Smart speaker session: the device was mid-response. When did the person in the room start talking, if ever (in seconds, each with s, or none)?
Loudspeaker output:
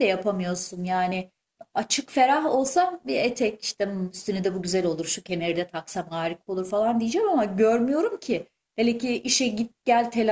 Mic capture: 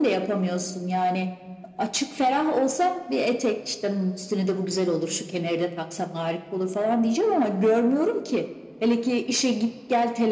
none